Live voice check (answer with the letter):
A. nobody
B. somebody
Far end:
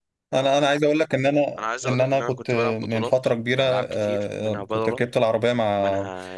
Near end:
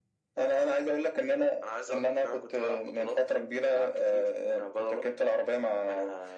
A